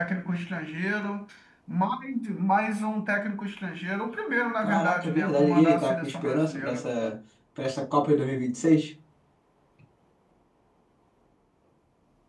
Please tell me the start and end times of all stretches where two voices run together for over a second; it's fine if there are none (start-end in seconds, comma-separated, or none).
4.6-6.9